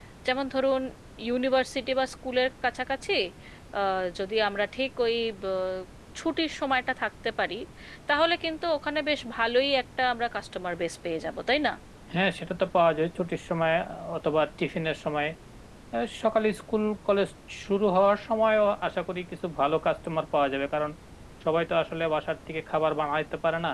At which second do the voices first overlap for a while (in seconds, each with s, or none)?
none